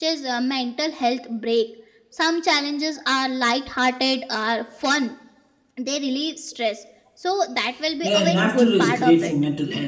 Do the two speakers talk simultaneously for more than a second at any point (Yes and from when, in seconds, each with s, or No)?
Yes, from 8.0 s